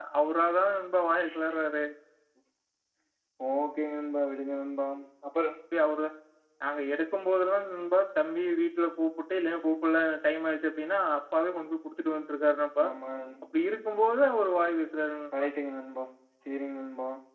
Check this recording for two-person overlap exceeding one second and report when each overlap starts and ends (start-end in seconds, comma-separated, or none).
none